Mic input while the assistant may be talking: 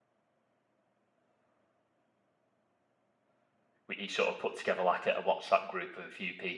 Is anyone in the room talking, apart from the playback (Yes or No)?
Yes